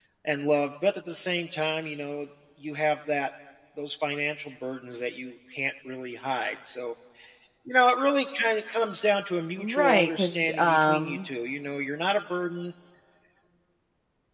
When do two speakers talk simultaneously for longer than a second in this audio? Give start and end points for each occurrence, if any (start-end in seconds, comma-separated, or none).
9.6-11.3